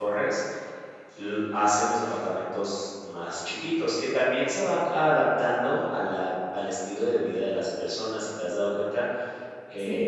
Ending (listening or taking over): listening